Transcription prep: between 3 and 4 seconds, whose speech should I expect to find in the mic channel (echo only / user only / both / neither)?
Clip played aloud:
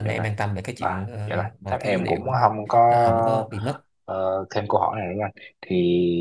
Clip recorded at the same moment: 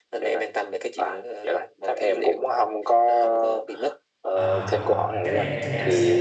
echo only